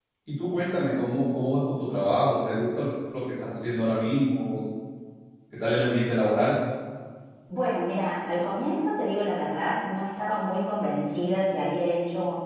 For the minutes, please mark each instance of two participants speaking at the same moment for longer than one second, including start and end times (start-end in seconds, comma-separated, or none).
none